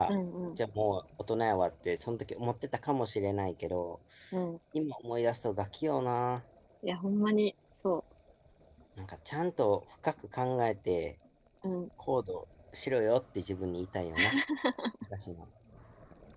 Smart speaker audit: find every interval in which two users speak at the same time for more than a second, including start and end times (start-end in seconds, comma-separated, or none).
none